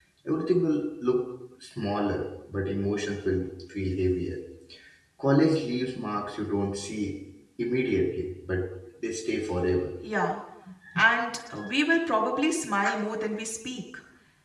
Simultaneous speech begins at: none

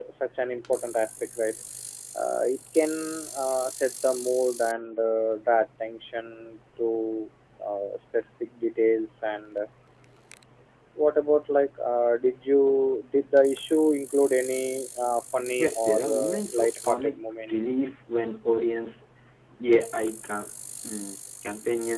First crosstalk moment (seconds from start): 16 s

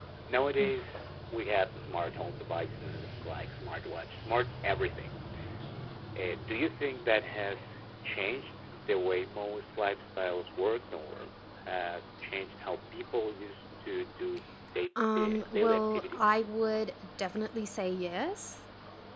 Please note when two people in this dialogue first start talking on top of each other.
15 s

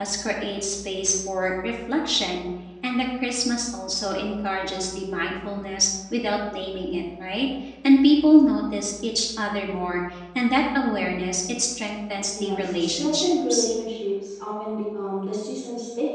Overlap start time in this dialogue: 12 s

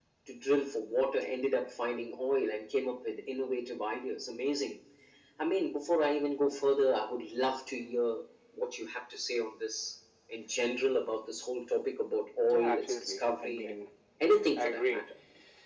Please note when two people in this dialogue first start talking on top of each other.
12 s

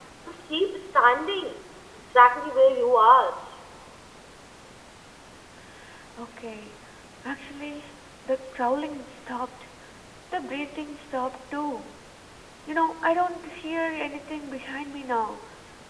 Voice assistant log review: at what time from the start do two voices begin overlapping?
none

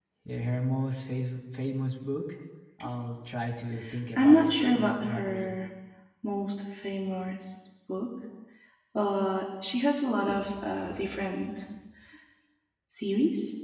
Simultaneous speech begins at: 4 s

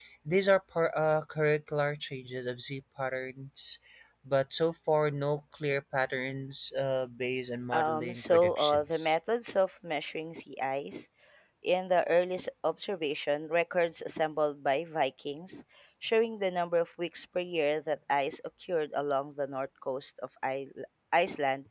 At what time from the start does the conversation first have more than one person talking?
8 s

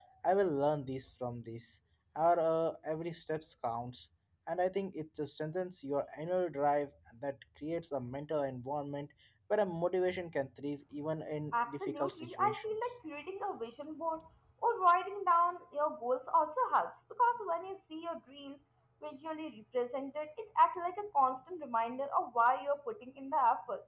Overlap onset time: 12 s

